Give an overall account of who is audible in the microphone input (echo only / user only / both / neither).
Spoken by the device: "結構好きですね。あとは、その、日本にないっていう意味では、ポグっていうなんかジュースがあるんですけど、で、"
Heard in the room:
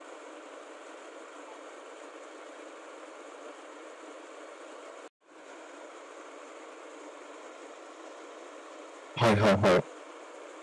user only